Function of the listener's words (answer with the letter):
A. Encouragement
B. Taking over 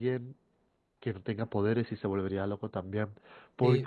B